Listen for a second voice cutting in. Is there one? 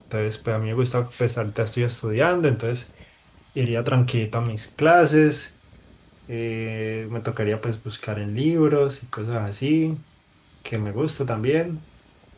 No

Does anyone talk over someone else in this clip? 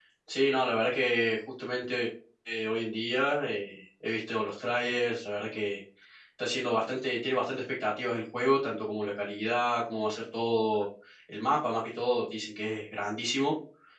No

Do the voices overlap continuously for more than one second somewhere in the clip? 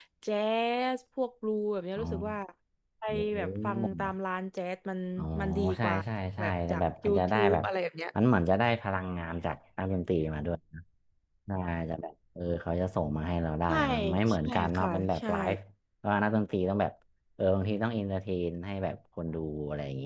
Yes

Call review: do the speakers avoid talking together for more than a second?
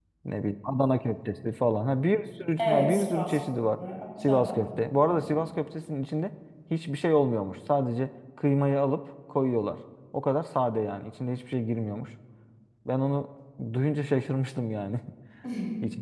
No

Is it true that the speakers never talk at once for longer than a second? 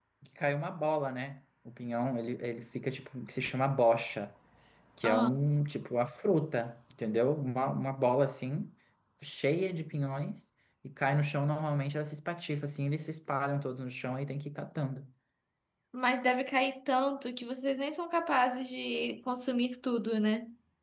Yes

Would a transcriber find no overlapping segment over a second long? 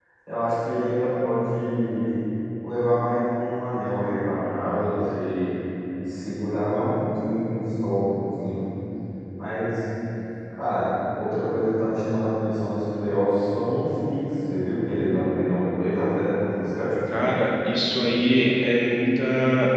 Yes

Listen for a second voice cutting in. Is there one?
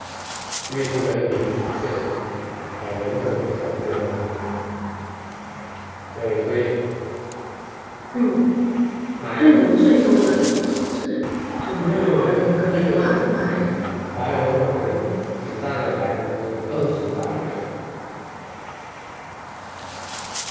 Yes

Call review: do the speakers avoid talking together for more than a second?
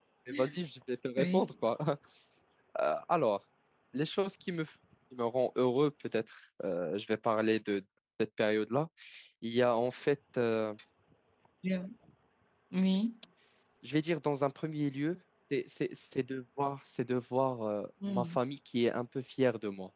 Yes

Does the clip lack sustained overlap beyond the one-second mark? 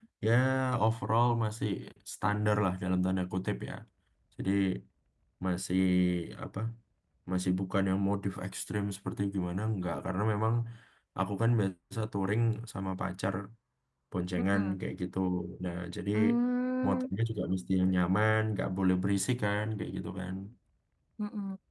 Yes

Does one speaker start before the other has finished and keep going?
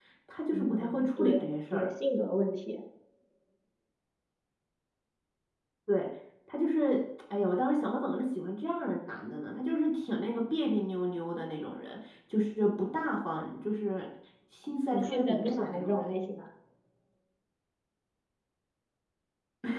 Yes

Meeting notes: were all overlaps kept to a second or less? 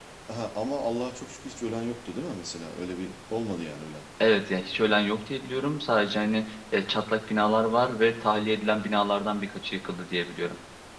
Yes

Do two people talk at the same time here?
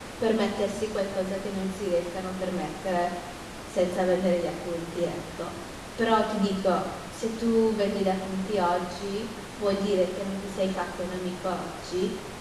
No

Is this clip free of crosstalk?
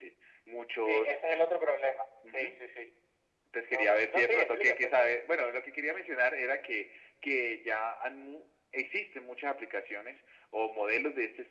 No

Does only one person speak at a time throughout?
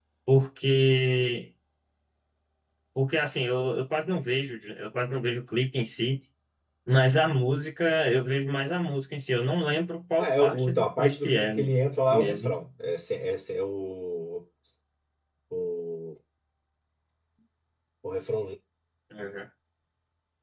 No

